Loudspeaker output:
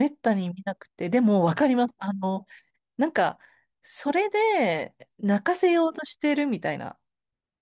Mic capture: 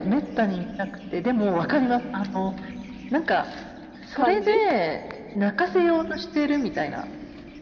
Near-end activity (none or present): present